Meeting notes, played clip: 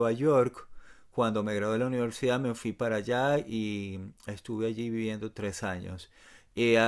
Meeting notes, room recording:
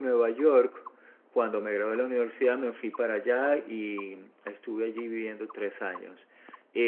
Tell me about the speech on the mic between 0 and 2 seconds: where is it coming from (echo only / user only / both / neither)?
echo only